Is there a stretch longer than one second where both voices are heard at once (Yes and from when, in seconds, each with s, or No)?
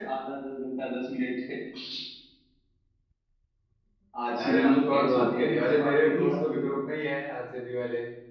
Yes, from 4.4 s